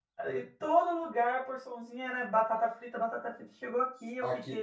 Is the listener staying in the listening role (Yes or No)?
No